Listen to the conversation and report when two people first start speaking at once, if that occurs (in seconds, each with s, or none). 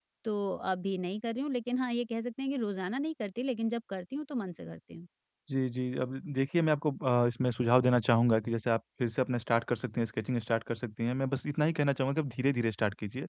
none